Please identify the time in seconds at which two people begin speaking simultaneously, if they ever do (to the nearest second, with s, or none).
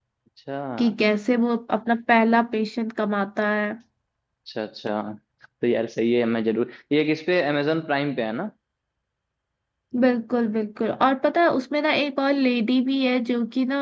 none